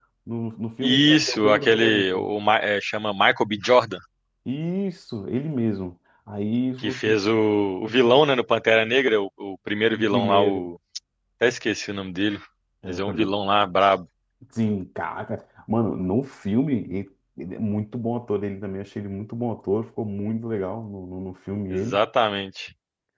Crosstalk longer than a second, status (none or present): present